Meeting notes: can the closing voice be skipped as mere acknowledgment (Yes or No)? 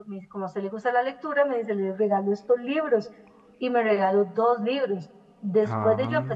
Yes